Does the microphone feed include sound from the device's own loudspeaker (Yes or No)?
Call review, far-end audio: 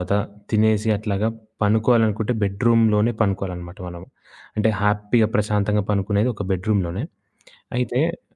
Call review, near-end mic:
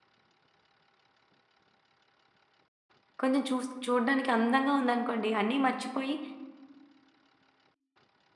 No